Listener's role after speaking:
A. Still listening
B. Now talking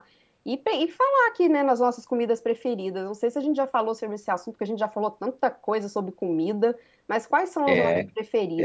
B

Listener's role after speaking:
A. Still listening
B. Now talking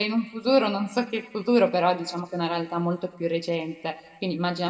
A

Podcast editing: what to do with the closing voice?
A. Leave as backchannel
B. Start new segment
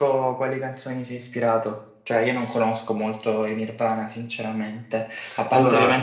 A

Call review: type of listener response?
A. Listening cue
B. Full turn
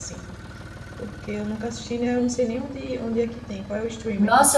B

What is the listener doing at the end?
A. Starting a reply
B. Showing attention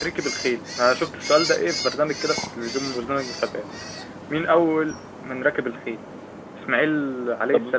B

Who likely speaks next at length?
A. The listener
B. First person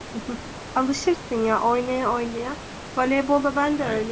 B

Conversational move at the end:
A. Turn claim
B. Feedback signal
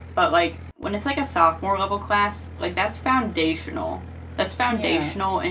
B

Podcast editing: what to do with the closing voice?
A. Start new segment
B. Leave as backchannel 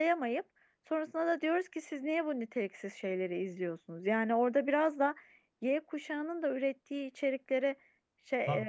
B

